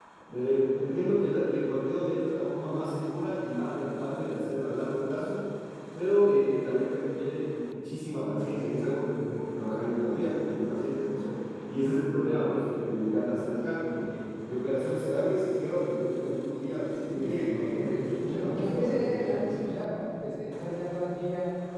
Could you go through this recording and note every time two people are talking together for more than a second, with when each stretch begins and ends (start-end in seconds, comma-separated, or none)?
17.1-19.4